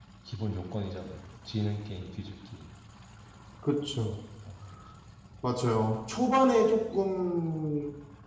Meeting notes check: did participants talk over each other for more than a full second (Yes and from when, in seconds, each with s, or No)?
No